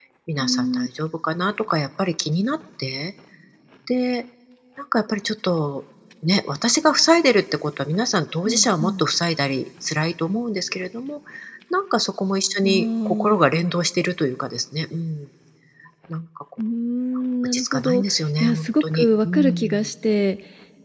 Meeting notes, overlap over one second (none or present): present